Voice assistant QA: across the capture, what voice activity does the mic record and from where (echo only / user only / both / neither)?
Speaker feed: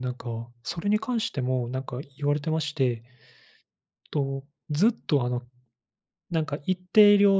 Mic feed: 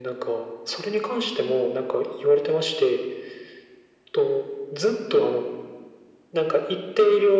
echo only